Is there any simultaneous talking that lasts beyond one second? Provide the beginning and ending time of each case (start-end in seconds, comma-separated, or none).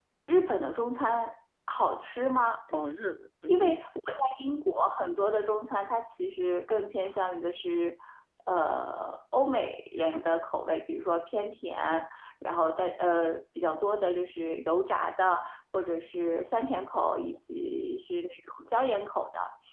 none